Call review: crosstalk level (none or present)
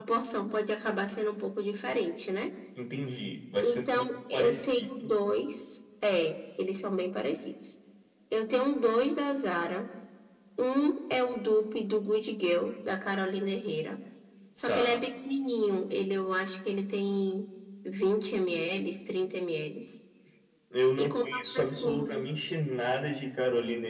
present